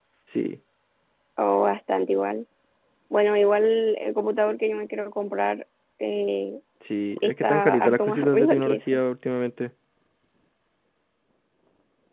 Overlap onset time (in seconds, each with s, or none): 7.2 s